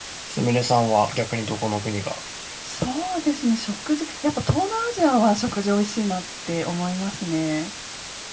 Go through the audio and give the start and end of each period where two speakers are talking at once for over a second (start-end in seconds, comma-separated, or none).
none